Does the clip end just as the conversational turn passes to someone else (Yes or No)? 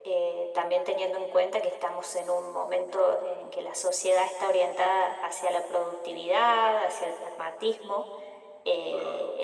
No